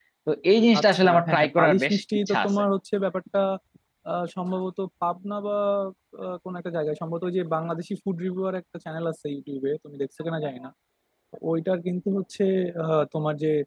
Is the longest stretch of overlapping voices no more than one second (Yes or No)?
No